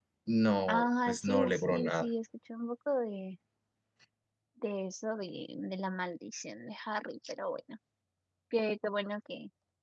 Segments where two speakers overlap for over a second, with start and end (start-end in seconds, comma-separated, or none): 0.7-2.1